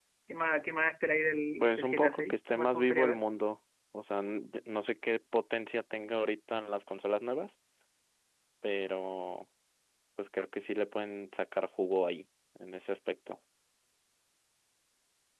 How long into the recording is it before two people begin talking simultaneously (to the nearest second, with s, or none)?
2 s